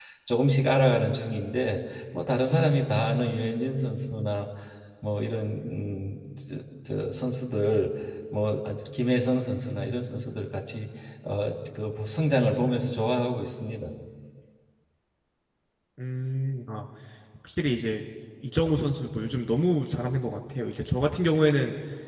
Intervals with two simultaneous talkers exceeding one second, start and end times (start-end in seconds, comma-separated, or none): none